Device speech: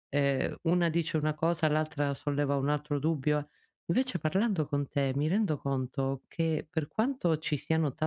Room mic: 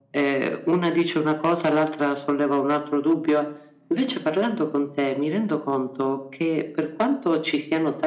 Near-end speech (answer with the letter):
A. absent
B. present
A